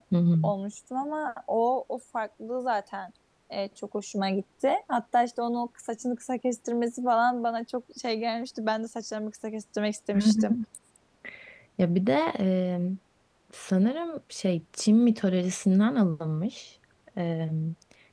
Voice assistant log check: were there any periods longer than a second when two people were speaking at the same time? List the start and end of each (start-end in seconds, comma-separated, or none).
none